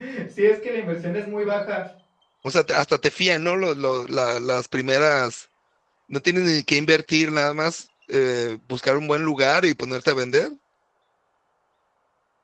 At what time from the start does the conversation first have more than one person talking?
none

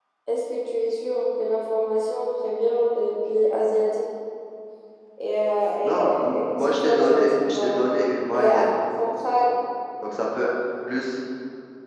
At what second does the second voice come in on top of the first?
5.8 s

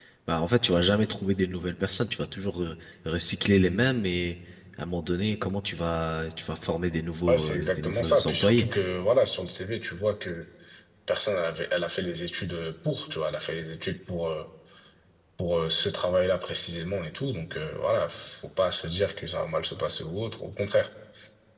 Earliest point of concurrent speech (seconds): 7.3 s

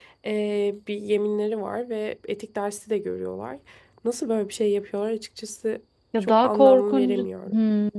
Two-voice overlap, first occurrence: 6.1 s

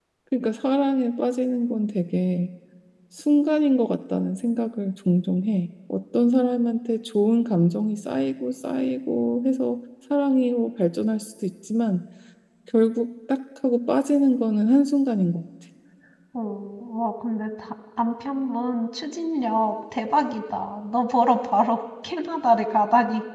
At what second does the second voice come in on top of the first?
none

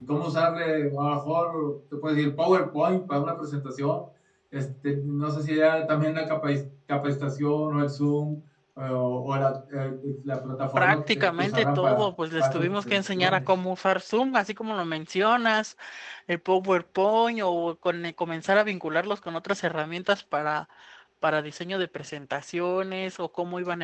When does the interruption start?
10.8 s

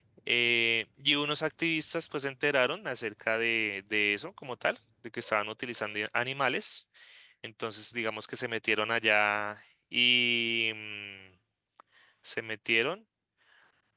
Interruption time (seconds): none

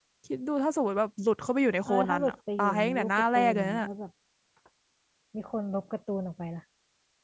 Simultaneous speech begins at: 1.9 s

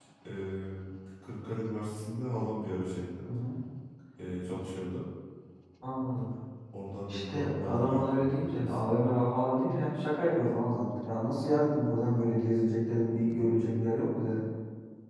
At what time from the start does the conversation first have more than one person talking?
7.1 s

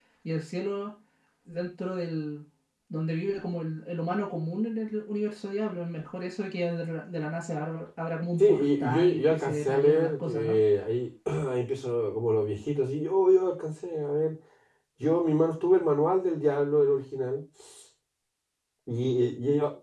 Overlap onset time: 8.4 s

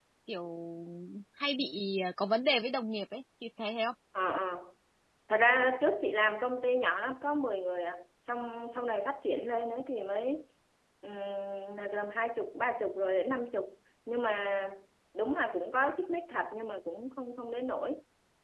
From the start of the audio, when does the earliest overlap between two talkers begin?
none

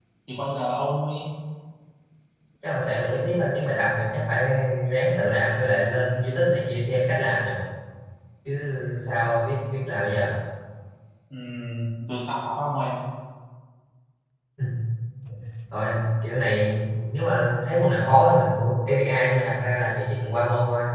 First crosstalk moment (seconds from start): none

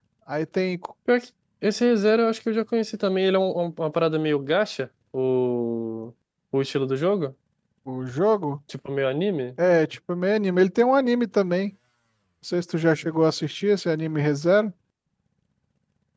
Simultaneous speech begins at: none

